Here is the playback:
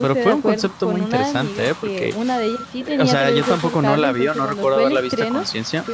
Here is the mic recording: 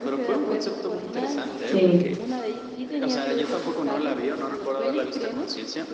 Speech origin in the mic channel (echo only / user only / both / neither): both